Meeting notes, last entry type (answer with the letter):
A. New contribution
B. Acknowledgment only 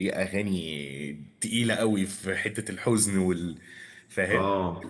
A